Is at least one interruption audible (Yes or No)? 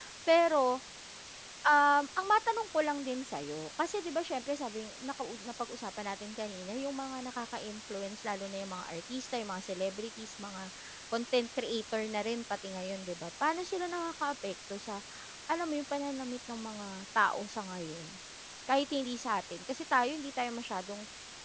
No